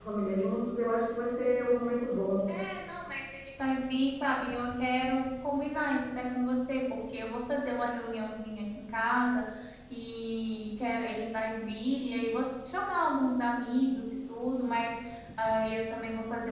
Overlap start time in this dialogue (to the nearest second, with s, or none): none